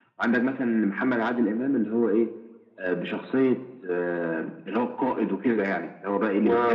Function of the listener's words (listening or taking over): taking over